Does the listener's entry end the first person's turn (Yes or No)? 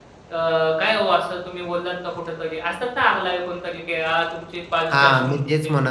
Yes